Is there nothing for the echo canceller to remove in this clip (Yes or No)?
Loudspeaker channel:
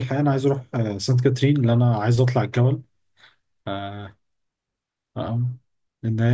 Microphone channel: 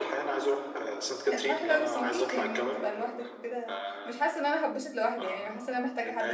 No